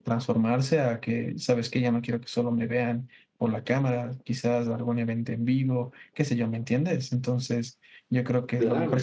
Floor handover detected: No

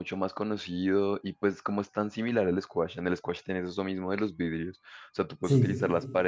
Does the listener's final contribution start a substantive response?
No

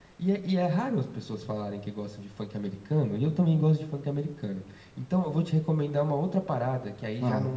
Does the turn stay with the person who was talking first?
Yes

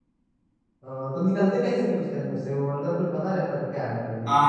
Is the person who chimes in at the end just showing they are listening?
No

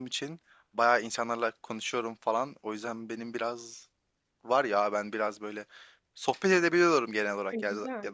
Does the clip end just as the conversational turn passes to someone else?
No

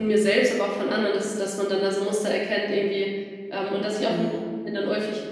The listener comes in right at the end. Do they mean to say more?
No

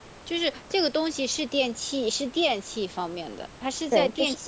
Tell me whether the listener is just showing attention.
No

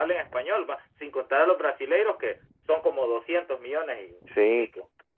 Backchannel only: No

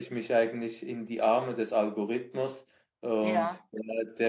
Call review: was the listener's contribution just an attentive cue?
Yes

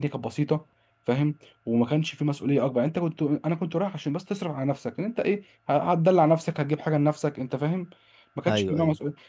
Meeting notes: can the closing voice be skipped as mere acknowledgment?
Yes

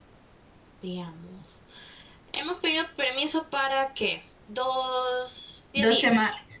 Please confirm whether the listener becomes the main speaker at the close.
Yes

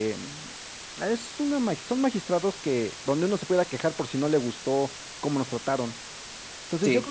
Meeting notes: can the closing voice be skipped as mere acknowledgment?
Yes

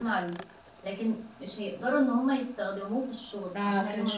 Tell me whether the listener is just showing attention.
No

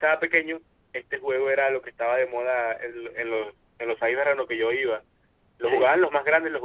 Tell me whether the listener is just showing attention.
Yes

